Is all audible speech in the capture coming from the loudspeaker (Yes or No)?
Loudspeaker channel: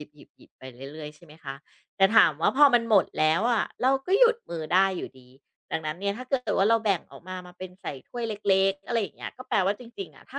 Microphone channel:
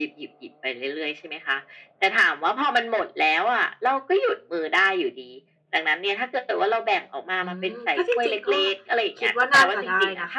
No